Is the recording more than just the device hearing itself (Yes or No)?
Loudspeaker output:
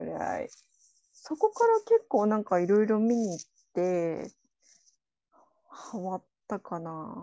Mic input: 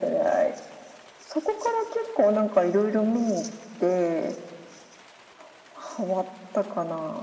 No